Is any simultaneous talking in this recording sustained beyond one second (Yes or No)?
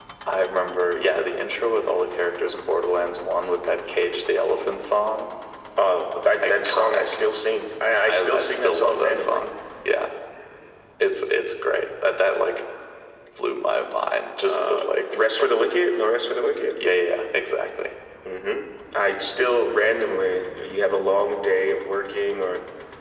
Yes